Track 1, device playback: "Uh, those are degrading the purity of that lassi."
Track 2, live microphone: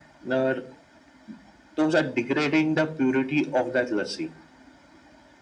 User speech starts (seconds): none

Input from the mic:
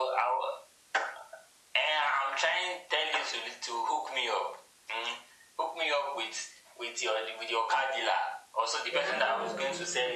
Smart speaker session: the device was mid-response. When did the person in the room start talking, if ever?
8.9 s

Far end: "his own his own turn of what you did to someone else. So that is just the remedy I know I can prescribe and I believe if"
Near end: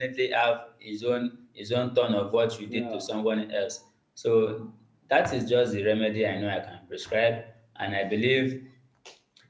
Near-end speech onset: 2.6 s

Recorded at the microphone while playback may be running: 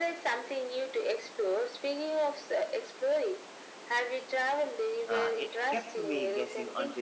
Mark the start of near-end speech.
5.1 s

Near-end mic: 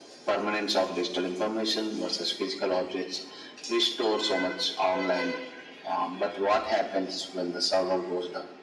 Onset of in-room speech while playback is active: none

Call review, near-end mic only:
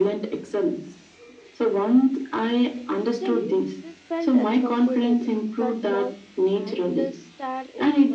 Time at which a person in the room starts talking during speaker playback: 2.8 s

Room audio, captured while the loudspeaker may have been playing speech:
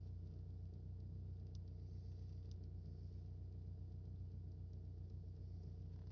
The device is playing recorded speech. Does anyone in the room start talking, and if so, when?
none

